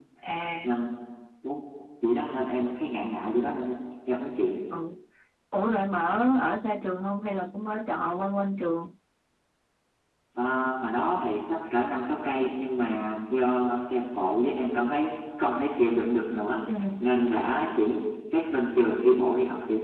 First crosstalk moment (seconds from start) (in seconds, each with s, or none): none